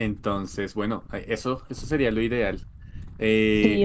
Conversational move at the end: listening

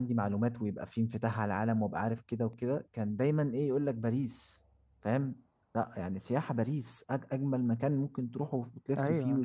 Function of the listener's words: taking over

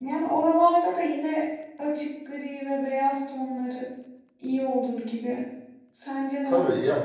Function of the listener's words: taking over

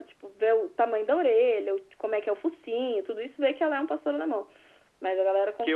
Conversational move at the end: taking over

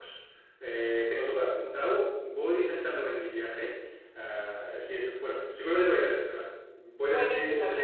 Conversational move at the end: taking over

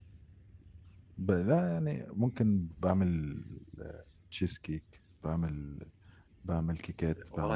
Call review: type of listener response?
taking over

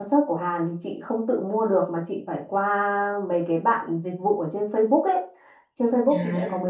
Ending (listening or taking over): listening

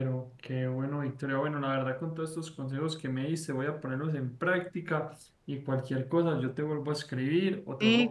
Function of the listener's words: taking over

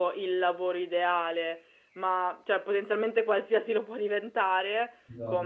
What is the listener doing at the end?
listening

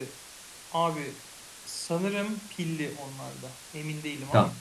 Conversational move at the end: taking over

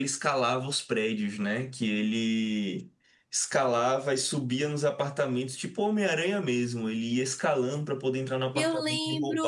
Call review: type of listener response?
taking over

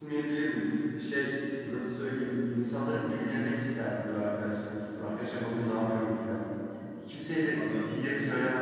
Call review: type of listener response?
listening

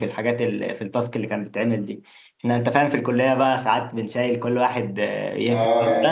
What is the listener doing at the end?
taking over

